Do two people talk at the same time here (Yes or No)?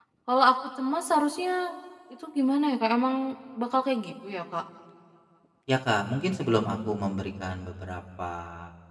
No